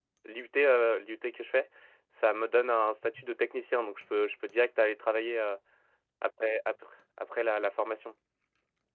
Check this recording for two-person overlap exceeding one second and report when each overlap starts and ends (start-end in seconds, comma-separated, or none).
none